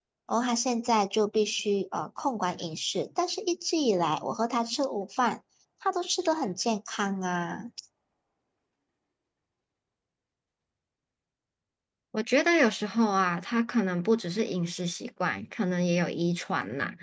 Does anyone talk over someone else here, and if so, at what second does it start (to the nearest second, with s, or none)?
none